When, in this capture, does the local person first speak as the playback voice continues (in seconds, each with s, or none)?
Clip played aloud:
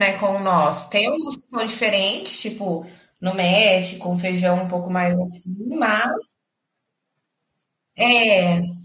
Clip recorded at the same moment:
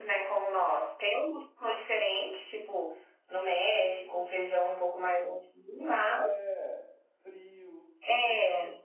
6.1 s